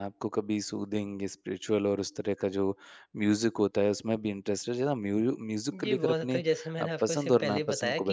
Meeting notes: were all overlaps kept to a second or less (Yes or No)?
No